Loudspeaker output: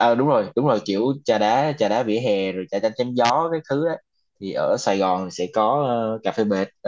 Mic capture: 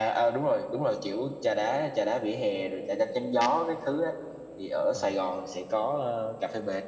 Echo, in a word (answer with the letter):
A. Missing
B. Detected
B